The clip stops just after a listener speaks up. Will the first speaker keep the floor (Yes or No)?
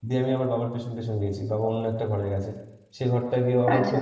Yes